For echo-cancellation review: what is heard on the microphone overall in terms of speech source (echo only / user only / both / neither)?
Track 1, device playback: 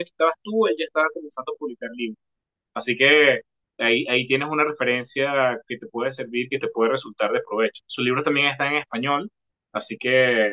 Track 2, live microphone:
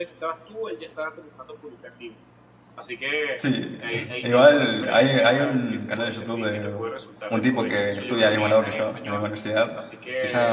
both